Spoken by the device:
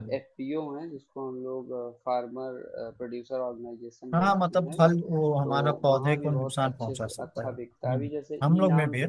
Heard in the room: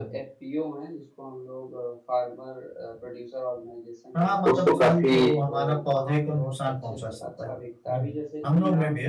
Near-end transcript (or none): उसको काफी